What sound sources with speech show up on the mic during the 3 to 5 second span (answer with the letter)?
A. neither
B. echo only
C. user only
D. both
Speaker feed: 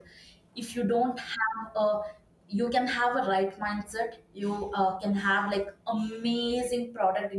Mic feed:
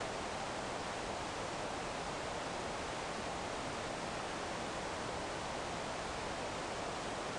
A